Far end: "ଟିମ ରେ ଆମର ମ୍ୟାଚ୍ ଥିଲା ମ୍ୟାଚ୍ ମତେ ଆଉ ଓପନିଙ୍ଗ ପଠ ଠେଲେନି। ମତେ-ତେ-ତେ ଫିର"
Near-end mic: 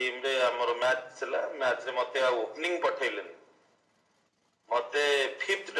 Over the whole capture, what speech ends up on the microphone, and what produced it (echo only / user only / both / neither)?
echo only